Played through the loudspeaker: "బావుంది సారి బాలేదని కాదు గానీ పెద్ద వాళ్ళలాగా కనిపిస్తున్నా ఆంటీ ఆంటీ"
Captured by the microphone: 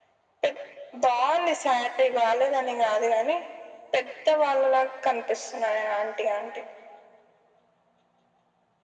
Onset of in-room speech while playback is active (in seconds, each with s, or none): none